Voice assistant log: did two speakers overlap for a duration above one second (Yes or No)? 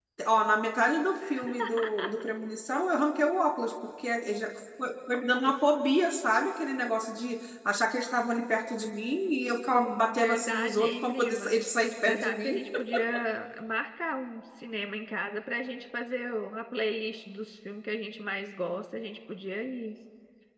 Yes